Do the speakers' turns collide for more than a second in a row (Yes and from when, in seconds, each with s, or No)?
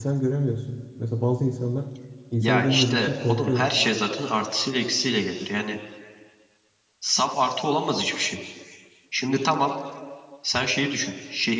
Yes, from 2.4 s